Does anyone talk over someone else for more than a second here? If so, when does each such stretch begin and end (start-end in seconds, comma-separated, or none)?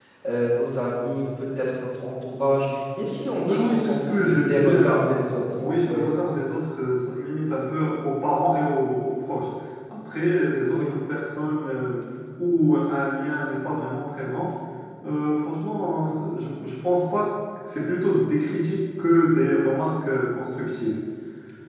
3.4-5.0